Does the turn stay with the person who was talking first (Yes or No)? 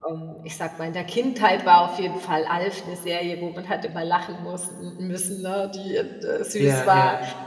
Yes